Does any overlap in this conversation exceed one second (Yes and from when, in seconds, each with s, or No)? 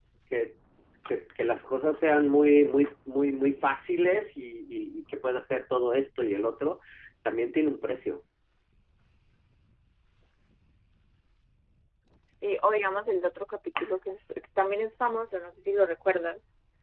No